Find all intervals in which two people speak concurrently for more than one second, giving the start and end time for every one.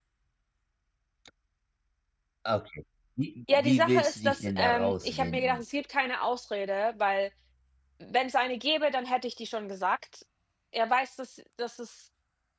3.5-5.6

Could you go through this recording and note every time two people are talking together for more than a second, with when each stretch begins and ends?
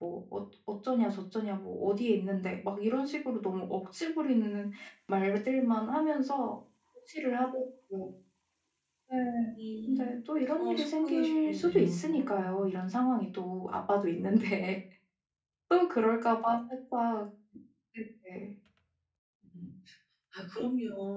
10.6-12.6

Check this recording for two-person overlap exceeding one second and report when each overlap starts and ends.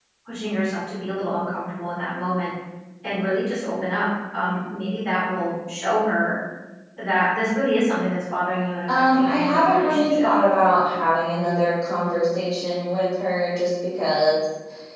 9.0-10.3

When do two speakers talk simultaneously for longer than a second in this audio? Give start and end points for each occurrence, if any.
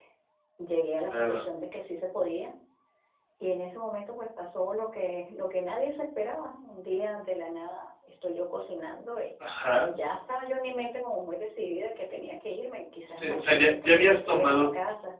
13.2-14.7

